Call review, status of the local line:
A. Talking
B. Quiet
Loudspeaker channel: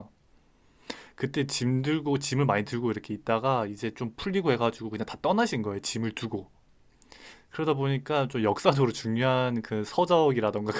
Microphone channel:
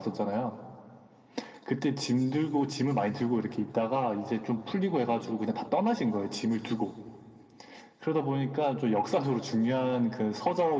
B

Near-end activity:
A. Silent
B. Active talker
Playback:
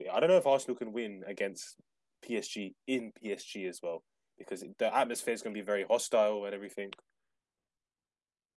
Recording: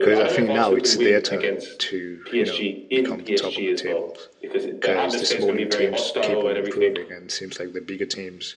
B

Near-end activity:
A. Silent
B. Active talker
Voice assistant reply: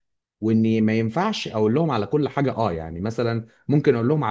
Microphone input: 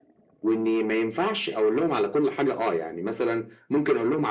A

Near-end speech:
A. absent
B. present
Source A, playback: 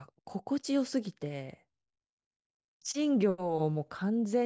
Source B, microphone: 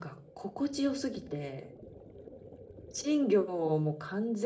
A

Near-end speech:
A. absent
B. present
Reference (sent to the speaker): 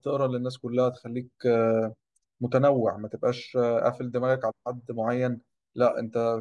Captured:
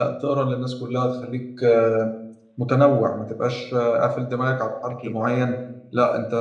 B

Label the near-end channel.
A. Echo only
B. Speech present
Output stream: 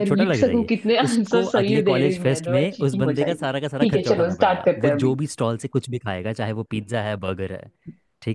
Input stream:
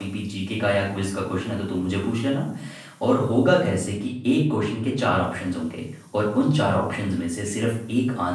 B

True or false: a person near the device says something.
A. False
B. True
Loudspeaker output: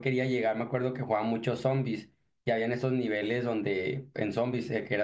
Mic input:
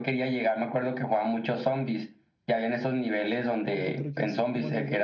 B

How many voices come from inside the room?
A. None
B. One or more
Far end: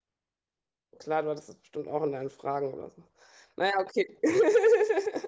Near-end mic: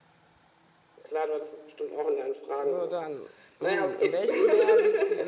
B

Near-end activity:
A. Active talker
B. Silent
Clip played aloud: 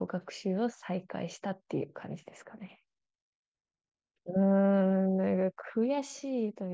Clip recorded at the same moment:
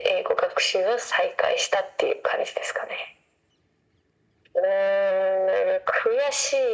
B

